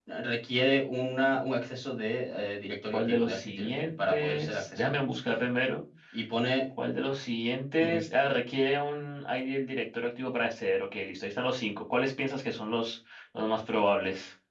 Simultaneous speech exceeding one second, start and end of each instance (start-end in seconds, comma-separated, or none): 2.9-5.0